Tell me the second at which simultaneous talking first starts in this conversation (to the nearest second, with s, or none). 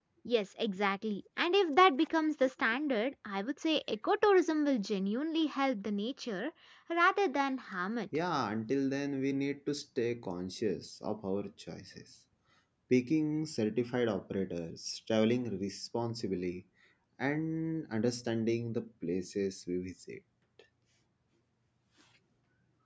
none